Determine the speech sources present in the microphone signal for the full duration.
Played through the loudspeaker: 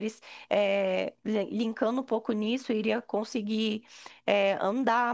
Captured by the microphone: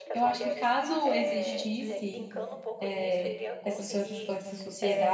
both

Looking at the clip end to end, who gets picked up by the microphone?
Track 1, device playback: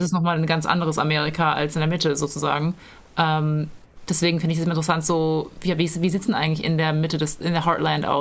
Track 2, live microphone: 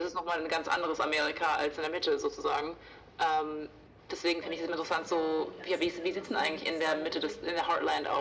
both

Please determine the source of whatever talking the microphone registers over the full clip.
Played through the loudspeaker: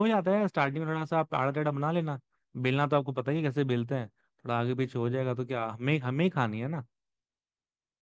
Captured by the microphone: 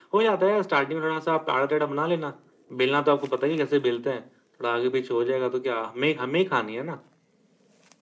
echo only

